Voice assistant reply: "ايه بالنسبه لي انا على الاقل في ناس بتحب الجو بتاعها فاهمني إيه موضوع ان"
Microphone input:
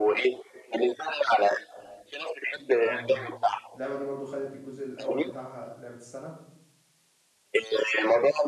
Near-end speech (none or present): present